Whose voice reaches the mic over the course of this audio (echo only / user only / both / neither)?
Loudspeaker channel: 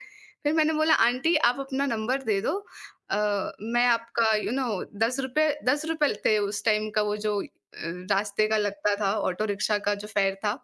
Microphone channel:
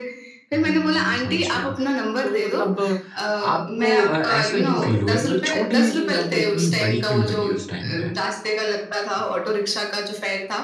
both